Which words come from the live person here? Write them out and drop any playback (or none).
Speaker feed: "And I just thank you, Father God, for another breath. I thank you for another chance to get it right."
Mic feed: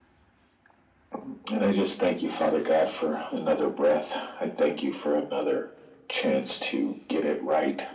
none